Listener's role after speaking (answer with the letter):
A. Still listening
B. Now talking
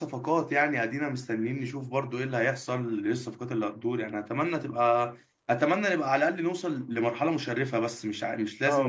B